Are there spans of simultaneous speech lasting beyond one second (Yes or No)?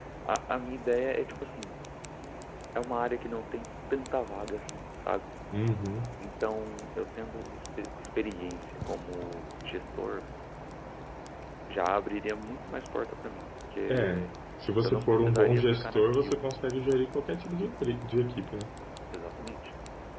Yes